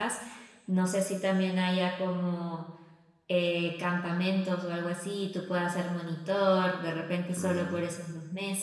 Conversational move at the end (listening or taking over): listening